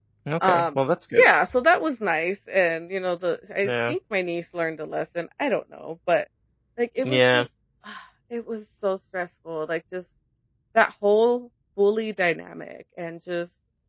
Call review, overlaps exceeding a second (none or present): none